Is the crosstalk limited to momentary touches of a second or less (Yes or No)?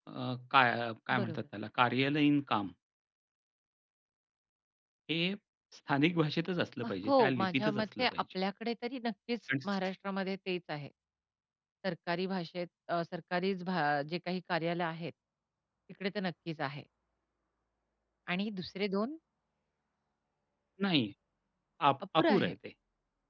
No